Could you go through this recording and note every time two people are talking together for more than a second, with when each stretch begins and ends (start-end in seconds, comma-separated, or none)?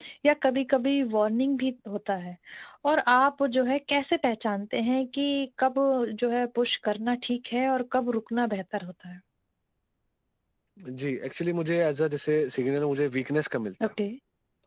none